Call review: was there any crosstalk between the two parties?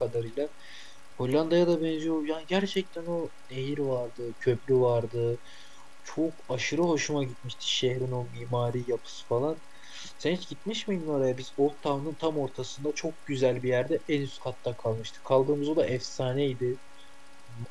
No

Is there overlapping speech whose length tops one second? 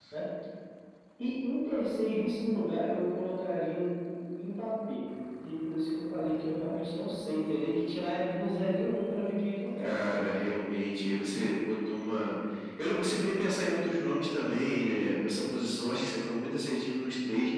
No

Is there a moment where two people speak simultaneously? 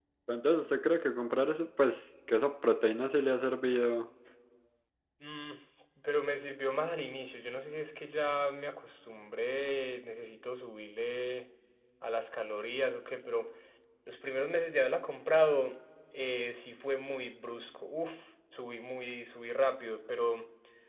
No

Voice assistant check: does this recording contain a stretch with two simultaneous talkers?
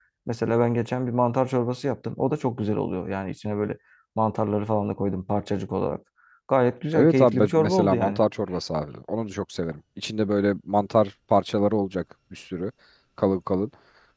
Yes, from 7.0 s

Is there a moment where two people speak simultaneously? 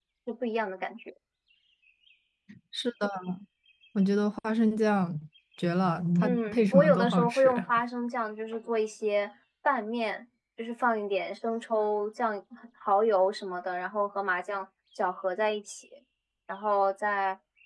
Yes, from 6.2 s

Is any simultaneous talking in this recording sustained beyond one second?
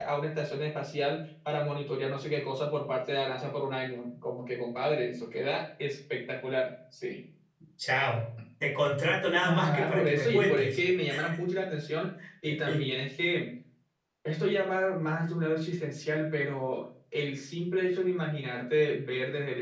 Yes, from 9.4 s

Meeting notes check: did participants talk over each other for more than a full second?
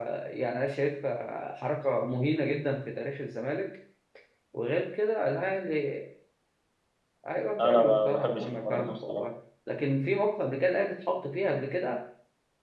Yes, from 7.6 s

